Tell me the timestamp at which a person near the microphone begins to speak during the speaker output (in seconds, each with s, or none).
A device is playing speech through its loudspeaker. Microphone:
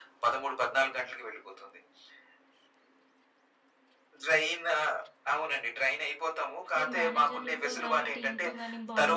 6.8 s